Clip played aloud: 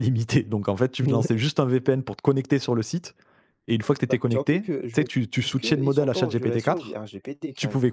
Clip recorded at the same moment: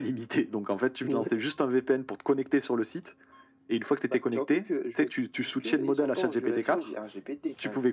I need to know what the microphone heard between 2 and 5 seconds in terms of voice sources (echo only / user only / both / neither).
echo only